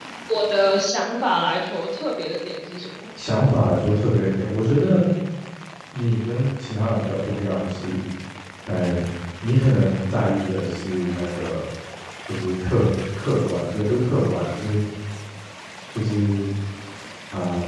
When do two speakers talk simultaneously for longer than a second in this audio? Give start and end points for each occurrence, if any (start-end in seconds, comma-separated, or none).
none